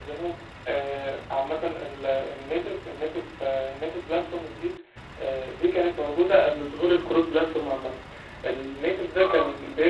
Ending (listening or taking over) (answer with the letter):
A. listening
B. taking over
A